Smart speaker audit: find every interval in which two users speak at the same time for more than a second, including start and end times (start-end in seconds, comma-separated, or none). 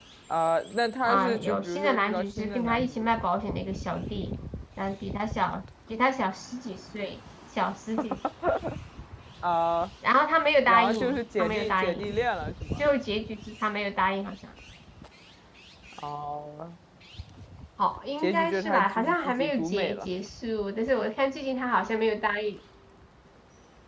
1.0-3.3, 10.7-12.1, 18.2-20.1